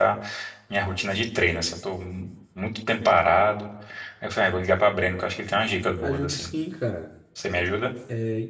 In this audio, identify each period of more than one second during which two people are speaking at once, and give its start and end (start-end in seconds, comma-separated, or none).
none